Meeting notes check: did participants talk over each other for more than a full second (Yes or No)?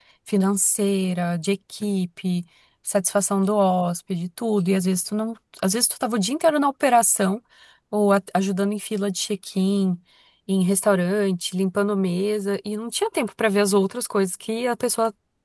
No